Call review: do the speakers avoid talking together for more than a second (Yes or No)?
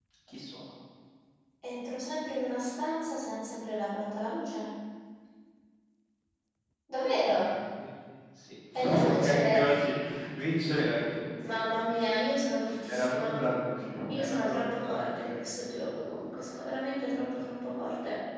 No